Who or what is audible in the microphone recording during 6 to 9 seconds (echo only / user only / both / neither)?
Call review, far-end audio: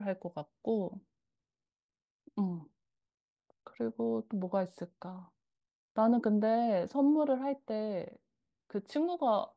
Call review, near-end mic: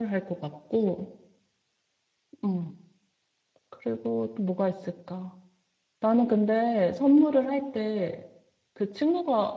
echo only